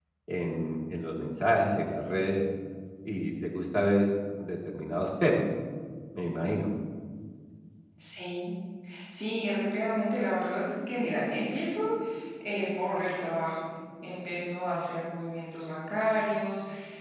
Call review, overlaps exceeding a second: none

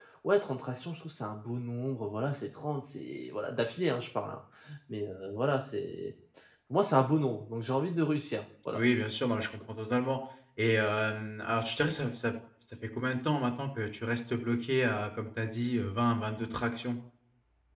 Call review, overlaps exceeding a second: none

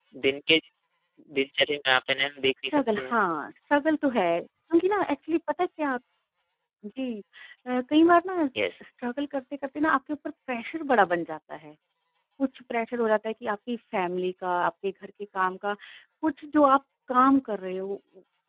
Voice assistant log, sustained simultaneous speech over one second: none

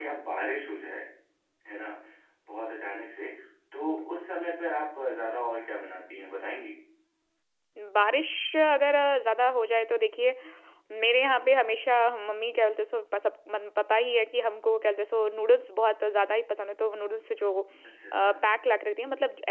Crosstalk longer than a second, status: none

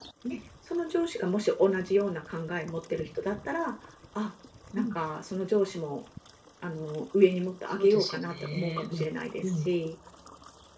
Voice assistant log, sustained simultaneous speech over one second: present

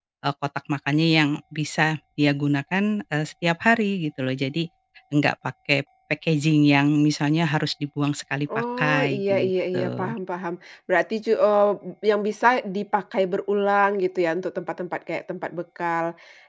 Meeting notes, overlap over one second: present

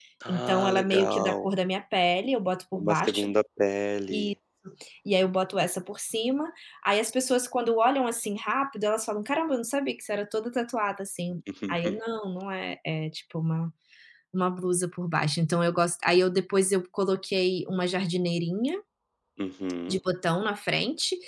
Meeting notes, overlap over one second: present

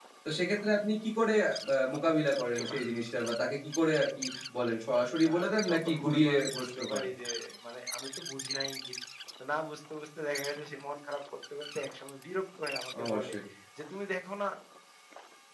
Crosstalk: present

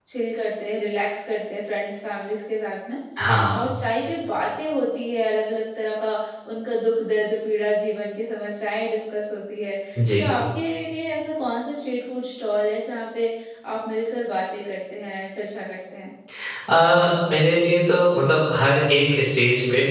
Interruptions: none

